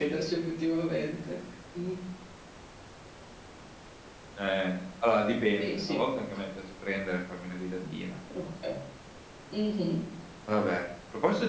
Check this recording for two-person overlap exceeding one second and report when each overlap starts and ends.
none

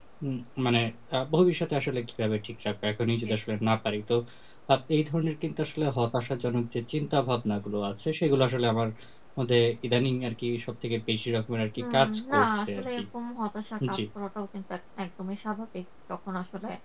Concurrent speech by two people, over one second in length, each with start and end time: 11.8-13.0

